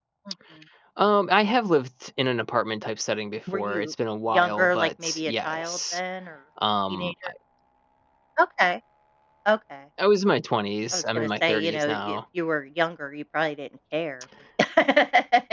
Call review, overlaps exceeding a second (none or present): present